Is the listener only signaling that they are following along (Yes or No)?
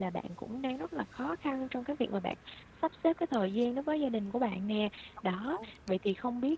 Yes